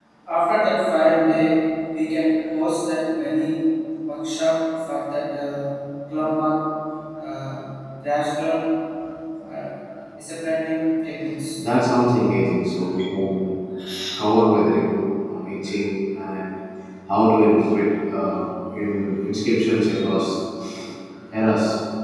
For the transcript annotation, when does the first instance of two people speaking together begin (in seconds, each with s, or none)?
none